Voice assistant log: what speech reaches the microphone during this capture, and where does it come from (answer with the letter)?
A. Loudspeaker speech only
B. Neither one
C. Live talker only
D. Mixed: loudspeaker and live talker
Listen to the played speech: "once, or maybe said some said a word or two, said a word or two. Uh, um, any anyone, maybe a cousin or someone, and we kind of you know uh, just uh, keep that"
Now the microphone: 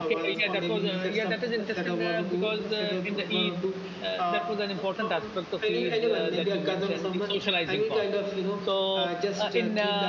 D